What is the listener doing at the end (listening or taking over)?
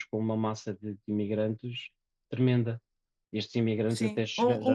taking over